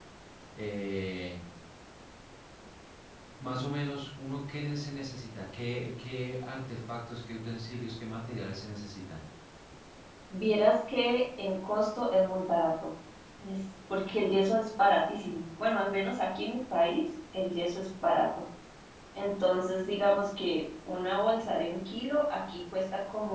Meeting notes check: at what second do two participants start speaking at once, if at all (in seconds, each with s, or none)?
none